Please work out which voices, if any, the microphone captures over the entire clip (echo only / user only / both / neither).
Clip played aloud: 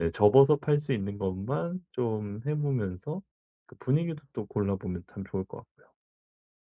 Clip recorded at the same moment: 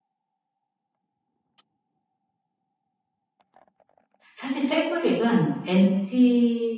user only